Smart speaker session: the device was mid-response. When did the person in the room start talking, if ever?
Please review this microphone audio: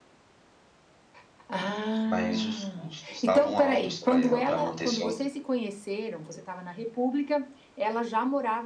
2 s

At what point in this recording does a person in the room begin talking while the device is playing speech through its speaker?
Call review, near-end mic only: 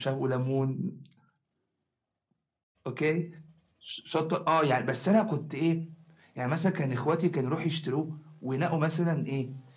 none

